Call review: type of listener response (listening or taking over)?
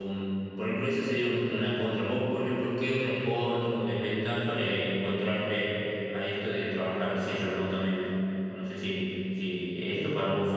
listening